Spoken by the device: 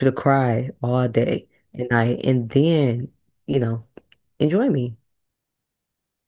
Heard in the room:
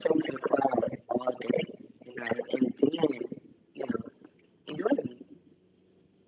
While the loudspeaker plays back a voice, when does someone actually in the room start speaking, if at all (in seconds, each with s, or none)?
none